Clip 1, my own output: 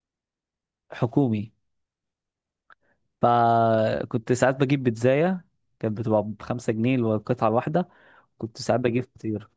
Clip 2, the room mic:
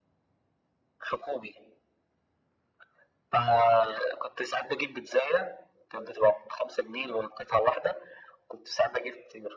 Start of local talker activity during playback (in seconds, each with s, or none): none